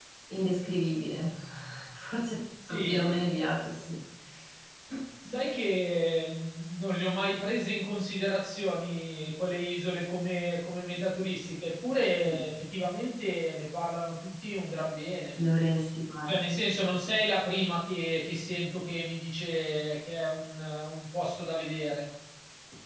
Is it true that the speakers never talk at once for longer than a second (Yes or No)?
Yes